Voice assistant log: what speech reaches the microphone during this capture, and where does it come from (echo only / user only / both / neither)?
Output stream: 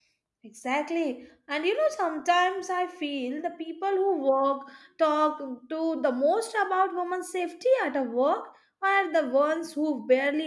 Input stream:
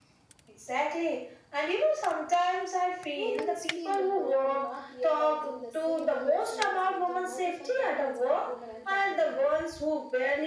both